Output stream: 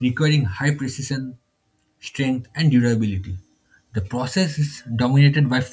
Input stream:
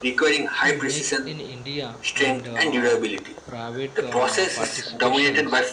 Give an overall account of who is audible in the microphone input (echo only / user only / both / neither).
both